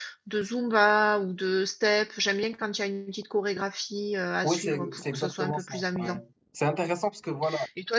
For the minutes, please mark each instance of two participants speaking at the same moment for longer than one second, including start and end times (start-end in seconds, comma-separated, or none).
4.4-6.2